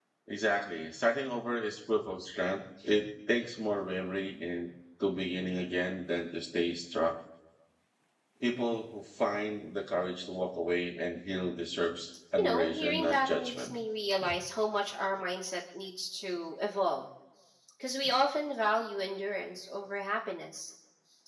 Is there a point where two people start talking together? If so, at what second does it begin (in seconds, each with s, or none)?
12.4 s